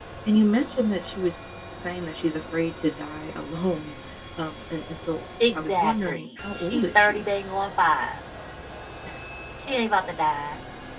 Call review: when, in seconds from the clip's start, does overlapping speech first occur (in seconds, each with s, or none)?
5.4 s